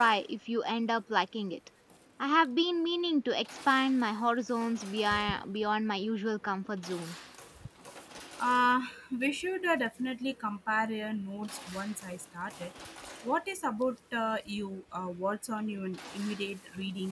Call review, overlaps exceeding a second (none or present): none